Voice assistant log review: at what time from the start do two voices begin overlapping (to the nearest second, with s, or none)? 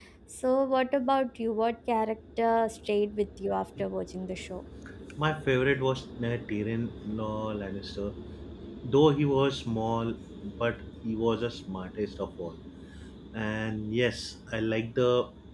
none